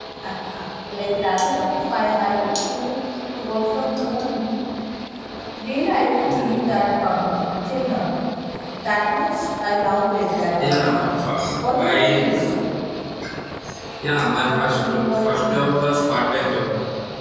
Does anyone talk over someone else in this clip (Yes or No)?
Yes